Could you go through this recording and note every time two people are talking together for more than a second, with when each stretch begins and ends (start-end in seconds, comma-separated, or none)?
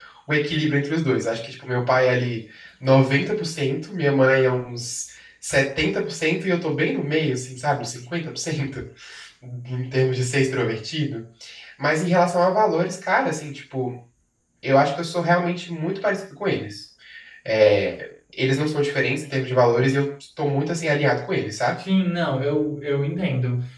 none